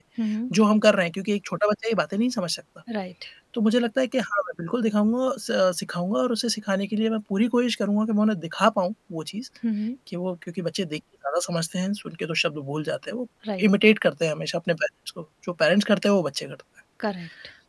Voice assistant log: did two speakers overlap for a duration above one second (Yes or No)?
No